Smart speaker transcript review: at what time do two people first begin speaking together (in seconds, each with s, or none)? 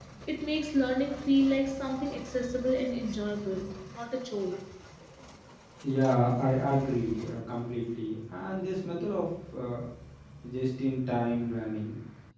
none